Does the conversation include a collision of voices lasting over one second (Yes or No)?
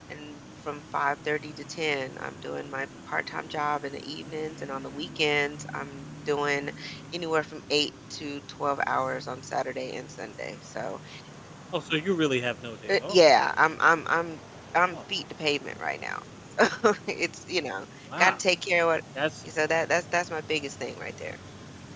No